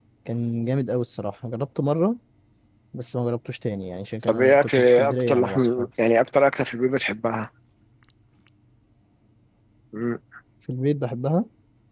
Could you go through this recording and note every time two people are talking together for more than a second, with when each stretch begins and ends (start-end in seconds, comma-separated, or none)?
4.2-5.9